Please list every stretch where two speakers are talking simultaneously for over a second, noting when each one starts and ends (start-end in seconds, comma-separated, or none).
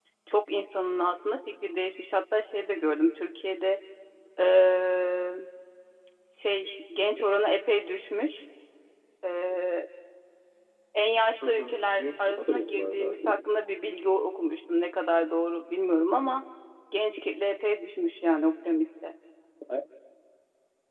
11.4-13.1